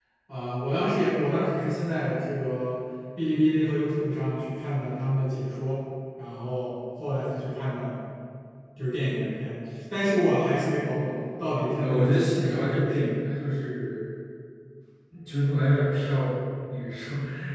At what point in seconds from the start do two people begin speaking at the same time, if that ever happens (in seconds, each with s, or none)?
11.8 s